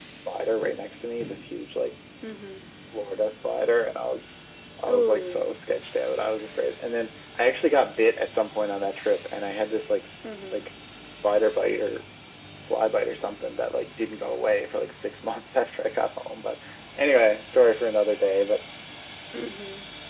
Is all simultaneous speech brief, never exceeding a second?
Yes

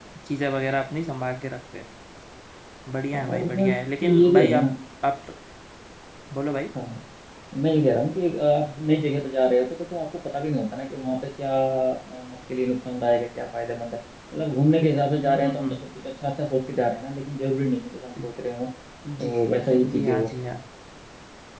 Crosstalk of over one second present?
Yes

